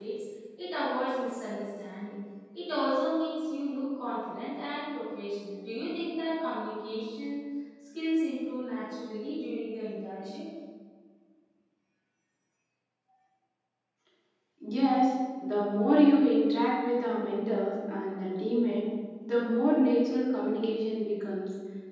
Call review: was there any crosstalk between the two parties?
No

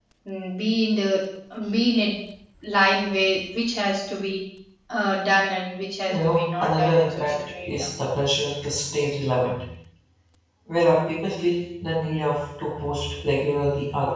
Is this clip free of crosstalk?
No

